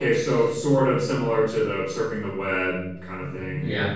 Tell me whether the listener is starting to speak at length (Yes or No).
Yes